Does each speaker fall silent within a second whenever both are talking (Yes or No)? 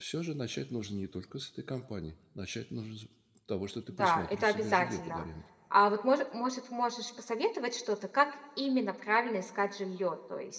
No